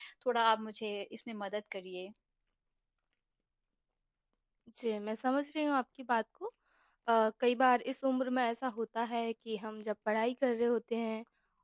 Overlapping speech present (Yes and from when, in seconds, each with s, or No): No